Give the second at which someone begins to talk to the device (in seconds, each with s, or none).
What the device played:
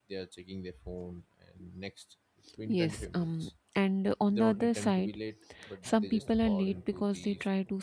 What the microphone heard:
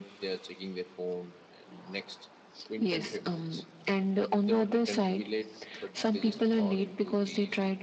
none